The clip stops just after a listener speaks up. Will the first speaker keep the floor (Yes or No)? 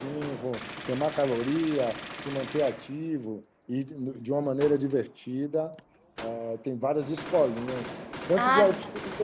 No